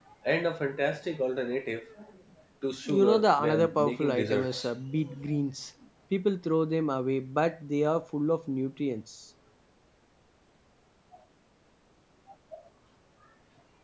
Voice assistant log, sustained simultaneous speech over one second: present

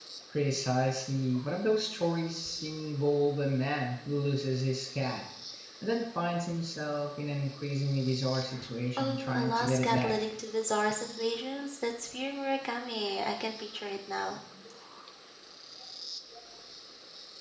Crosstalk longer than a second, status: present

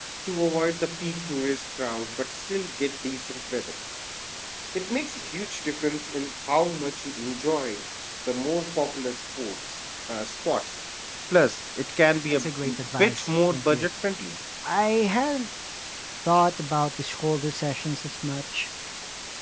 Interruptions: present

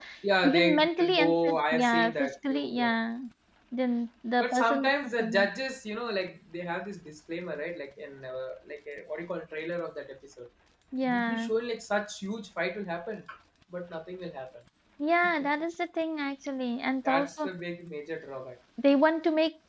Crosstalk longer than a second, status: present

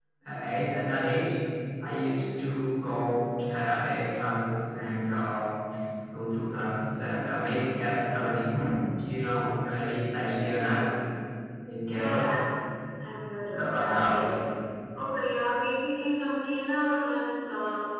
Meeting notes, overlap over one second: none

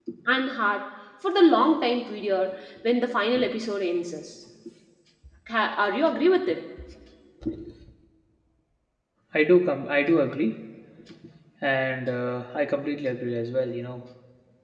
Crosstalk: none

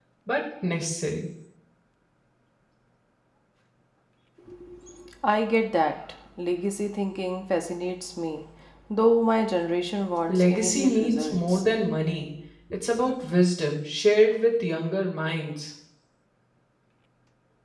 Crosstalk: present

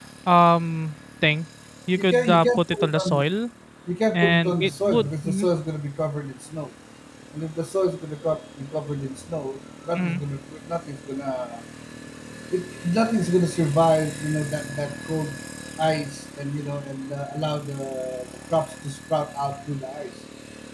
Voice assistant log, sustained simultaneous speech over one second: present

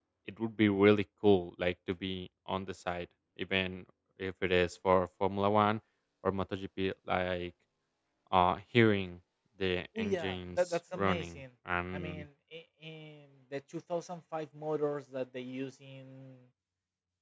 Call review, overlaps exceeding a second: present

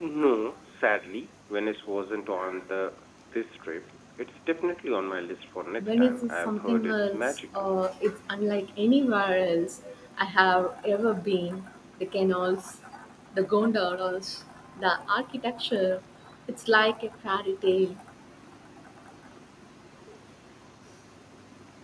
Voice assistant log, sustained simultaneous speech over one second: present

